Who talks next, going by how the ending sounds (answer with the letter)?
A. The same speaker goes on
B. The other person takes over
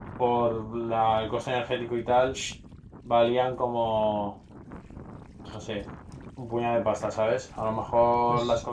A